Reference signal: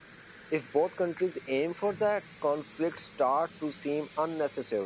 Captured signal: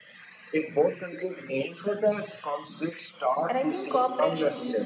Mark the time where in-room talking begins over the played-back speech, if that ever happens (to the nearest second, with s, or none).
3 s